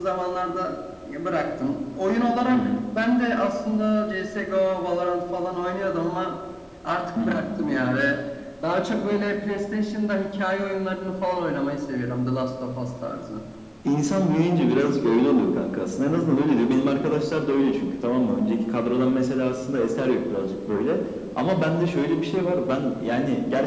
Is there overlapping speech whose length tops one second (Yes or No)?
No